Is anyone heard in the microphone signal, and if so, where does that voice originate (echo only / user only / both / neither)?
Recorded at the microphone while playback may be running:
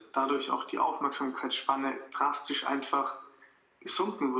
echo only